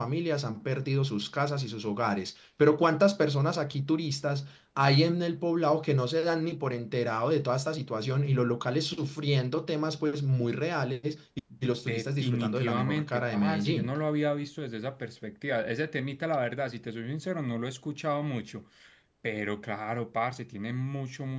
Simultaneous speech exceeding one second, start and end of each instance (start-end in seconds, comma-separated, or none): 11.8-13.9